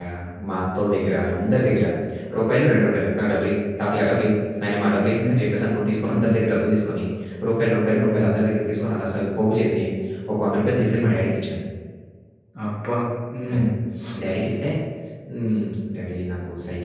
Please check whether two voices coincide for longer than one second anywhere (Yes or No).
No